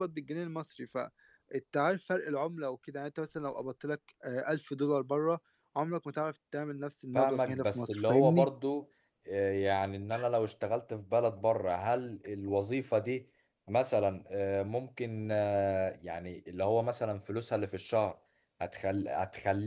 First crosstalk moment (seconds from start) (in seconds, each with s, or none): 7.2 s